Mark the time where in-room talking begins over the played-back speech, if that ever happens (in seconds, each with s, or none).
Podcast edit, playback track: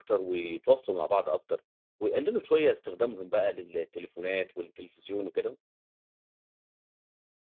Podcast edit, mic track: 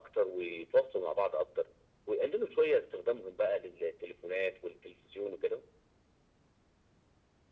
none